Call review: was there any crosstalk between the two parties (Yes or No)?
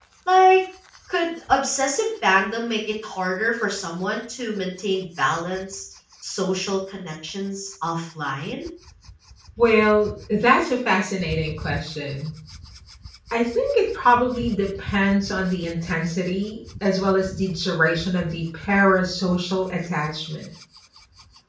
No